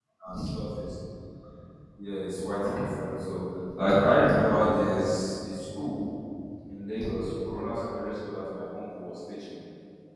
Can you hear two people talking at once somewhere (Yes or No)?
No